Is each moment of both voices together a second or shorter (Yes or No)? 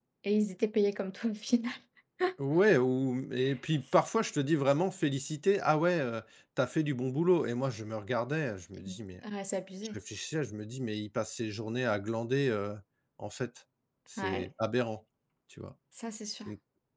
Yes